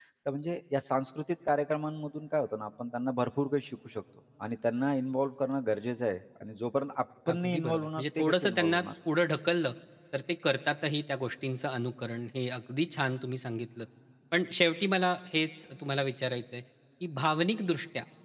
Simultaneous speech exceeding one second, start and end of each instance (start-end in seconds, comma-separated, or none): 7.3-8.8